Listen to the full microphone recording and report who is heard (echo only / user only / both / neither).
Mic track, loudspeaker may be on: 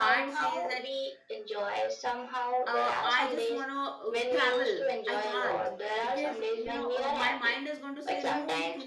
both